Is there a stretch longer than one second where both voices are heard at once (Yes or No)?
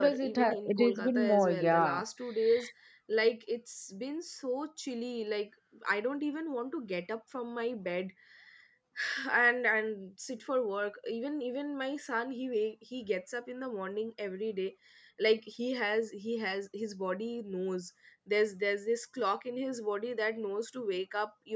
Yes